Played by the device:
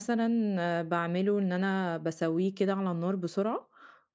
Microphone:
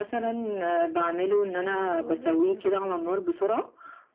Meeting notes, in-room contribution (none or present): present